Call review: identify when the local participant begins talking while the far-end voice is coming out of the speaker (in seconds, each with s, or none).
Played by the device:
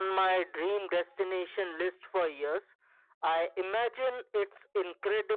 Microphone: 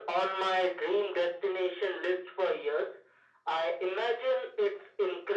none